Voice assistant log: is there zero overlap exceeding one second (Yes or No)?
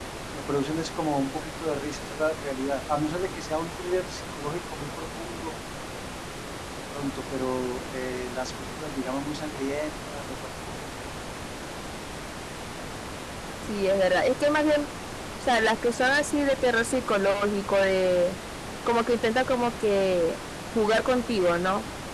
Yes